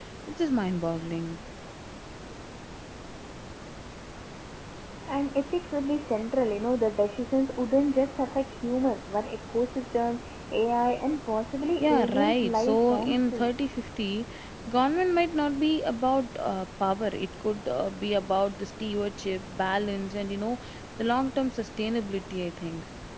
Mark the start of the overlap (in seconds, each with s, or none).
11.8 s